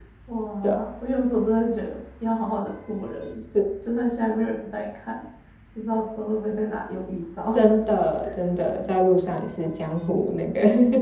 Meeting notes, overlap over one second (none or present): none